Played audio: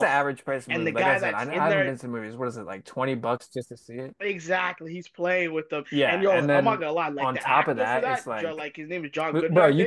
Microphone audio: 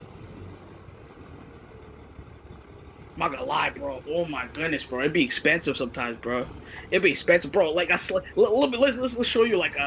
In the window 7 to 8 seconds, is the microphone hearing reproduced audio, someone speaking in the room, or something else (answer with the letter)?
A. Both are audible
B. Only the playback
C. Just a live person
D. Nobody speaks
C